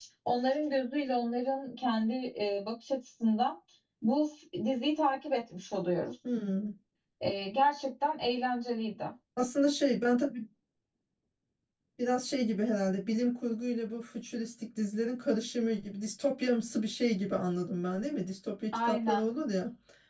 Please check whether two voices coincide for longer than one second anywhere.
No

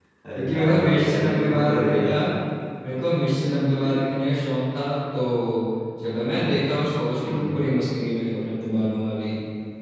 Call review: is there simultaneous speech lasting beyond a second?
Yes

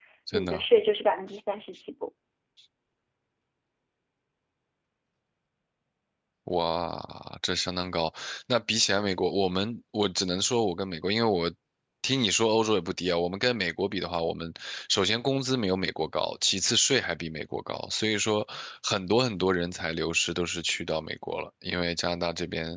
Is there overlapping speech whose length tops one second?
No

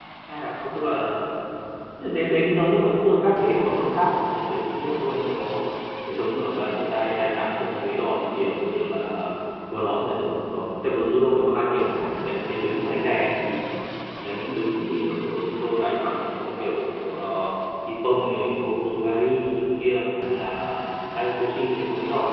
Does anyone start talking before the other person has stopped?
No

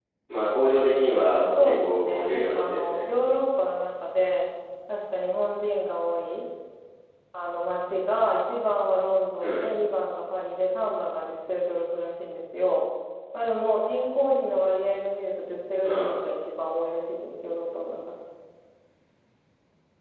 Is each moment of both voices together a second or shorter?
No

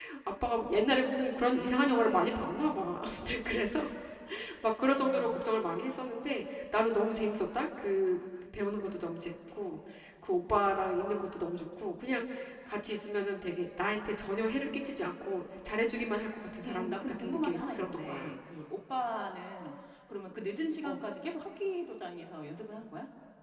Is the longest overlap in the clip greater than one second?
Yes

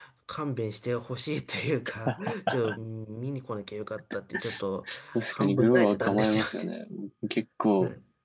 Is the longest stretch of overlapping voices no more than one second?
No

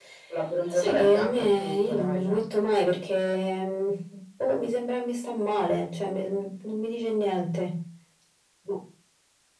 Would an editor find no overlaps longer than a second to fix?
No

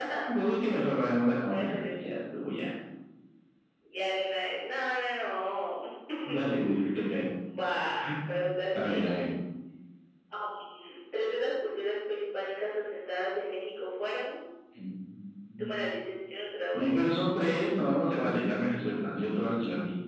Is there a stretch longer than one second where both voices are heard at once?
No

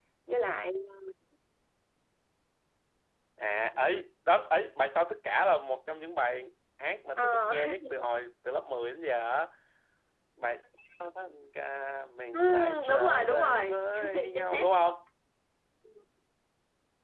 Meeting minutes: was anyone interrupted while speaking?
Yes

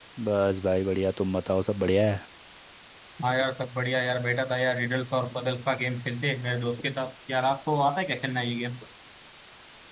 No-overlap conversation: Yes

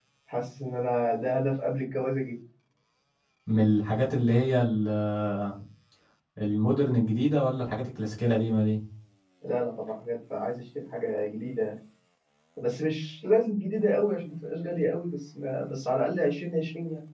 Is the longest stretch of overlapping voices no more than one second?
Yes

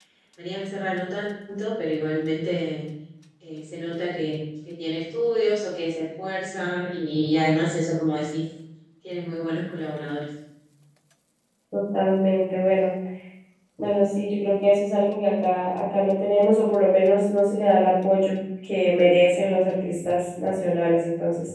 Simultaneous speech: No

